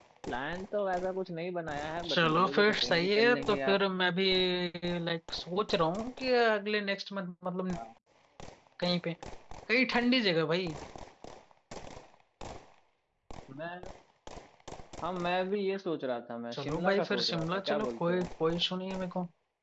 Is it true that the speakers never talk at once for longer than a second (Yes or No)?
No